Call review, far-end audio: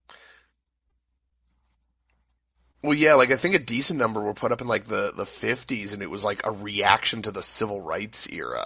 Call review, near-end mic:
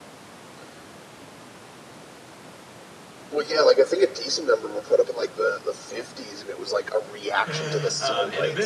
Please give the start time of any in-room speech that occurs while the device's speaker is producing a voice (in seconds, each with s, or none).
7.5 s